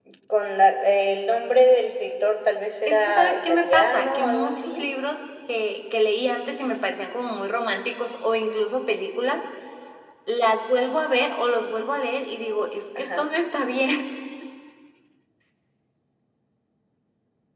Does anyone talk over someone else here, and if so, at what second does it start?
2.9 s

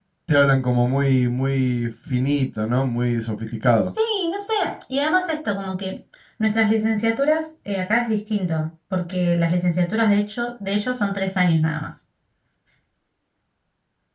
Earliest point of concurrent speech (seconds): none

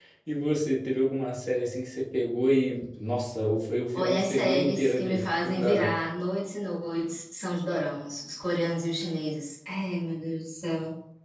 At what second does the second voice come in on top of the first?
3.9 s

